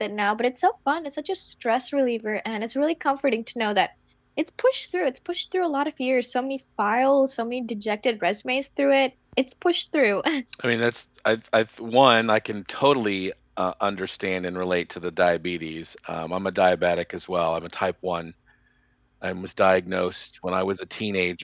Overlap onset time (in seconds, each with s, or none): none